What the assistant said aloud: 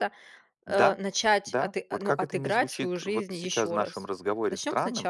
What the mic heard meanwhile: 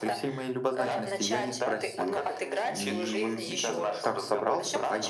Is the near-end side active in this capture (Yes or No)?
Yes